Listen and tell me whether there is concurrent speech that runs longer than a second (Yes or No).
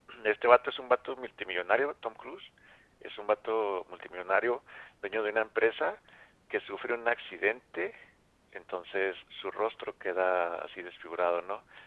No